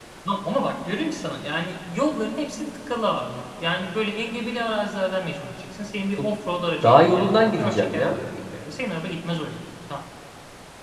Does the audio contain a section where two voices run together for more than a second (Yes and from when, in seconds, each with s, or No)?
Yes, from 6.8 s